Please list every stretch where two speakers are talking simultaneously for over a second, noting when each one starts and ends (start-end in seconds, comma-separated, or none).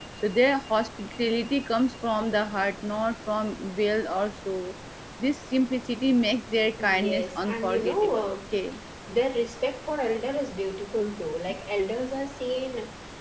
6.8-8.4